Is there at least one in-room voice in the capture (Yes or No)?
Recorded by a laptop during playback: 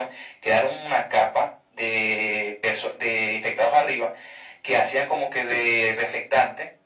No